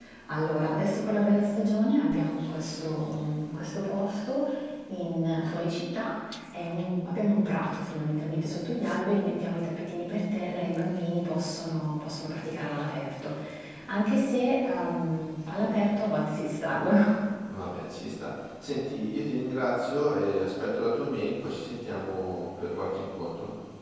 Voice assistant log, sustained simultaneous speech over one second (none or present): none